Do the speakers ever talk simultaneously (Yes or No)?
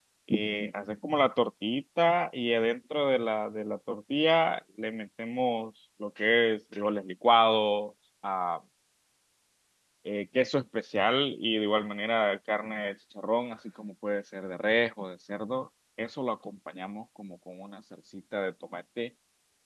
No